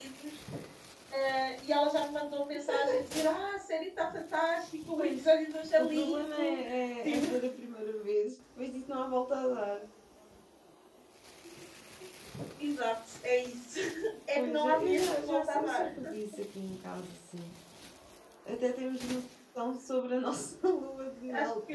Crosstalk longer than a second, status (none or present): present